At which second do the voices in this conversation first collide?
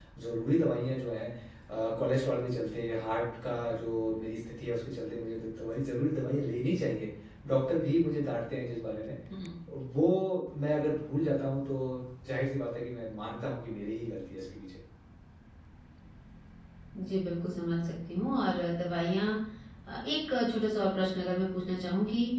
none

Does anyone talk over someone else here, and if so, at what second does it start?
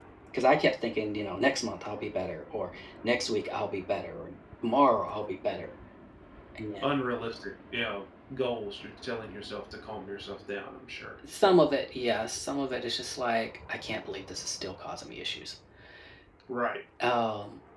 none

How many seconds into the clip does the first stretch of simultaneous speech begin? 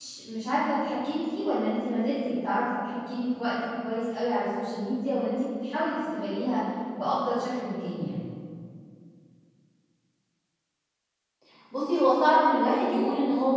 none

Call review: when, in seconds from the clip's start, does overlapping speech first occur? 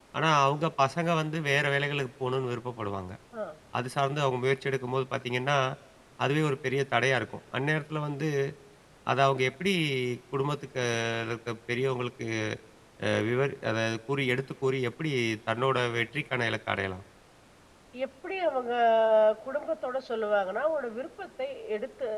none

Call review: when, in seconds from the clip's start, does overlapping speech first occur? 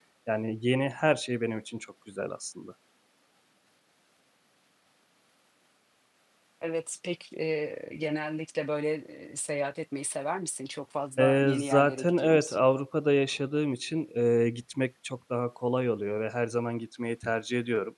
11.2 s

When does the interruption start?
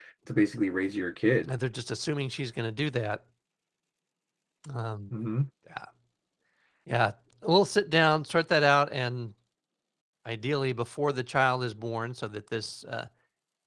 none

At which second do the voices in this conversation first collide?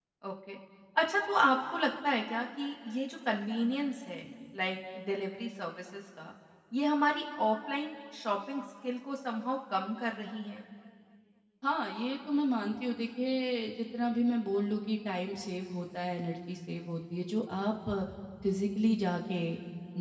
none

